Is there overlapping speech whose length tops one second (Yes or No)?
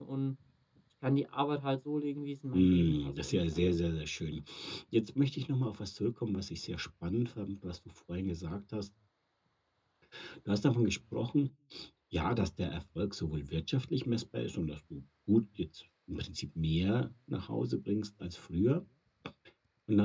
Yes